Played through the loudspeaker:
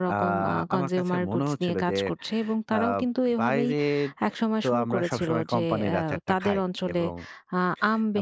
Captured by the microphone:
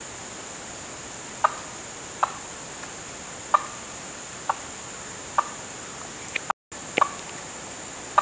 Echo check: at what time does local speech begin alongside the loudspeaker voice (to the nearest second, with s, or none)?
none